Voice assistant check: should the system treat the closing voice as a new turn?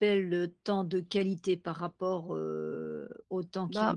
Yes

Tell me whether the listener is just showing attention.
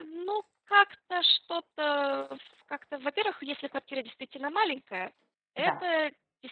Yes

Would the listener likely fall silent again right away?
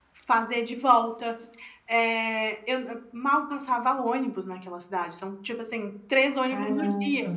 Yes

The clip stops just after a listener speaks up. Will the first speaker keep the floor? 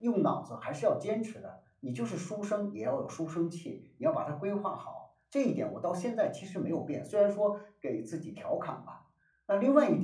Yes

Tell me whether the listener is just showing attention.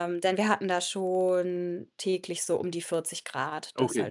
No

